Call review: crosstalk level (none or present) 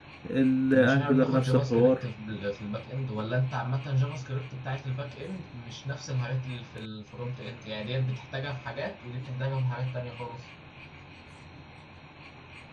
present